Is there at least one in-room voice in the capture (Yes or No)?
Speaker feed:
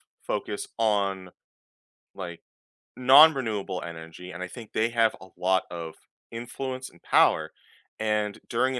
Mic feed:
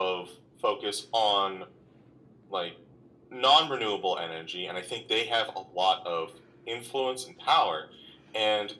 No